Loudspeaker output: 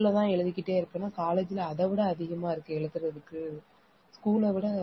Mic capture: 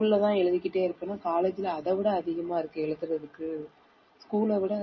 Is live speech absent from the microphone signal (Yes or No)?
Yes